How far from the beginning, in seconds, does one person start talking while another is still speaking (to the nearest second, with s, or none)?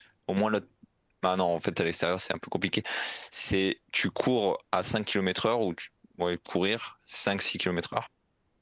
none